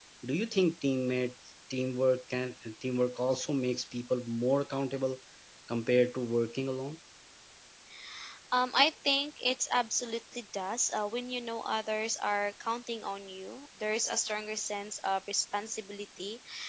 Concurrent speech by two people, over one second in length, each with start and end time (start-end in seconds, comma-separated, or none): none